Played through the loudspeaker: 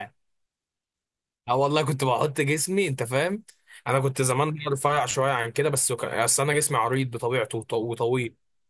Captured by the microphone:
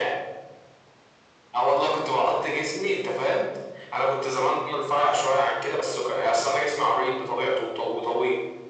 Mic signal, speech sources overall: echo only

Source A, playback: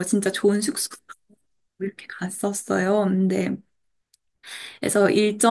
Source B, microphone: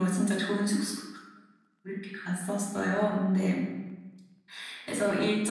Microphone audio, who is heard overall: echo only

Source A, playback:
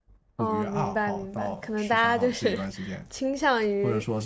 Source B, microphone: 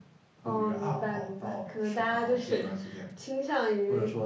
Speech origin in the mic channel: echo only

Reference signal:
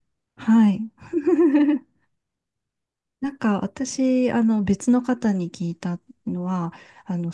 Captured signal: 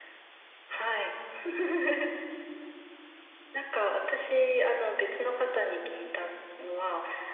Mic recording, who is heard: echo only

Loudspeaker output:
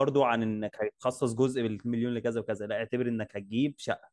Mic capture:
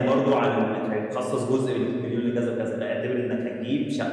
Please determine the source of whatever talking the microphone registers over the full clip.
echo only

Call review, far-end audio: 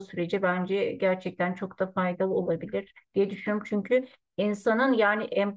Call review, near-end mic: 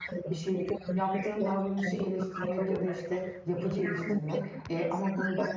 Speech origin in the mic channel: both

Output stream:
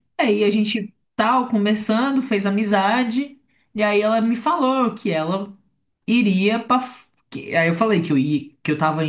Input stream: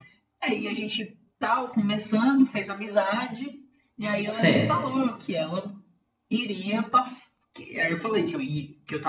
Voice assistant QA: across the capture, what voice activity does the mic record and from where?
both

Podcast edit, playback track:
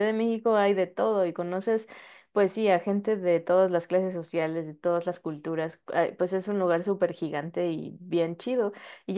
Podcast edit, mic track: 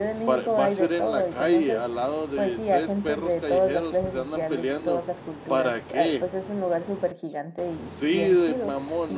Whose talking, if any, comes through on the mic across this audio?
both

